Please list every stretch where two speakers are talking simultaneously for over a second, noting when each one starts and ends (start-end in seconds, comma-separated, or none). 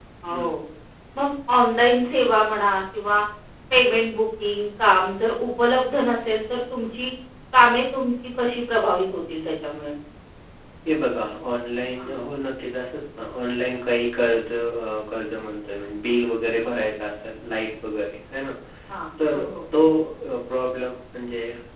none